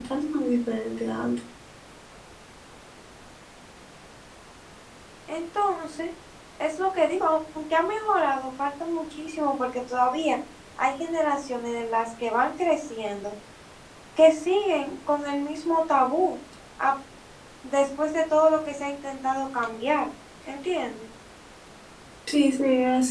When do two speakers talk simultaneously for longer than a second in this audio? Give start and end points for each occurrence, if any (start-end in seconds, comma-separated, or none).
none